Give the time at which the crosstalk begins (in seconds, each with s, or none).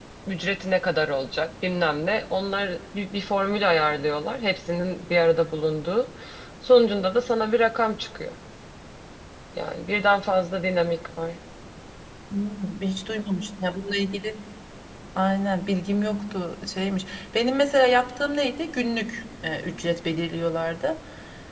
none